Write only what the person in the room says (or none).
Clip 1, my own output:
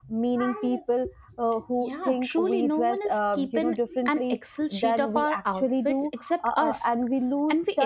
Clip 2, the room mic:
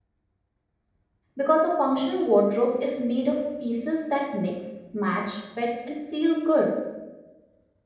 because a functional wardrobe is made of pieces that mix, match, fit, and feel good,